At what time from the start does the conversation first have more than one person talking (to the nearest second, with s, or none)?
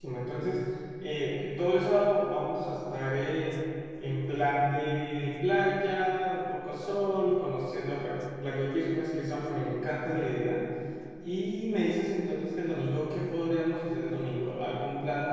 none